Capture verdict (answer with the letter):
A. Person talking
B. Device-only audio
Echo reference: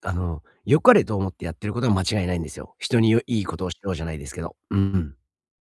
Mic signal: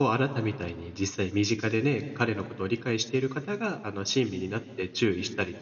A